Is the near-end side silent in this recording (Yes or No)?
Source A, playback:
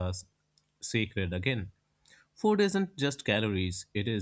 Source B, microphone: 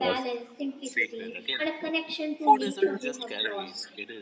No